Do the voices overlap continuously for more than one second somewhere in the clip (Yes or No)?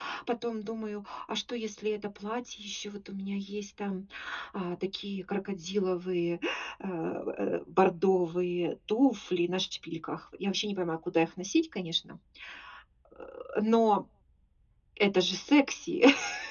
No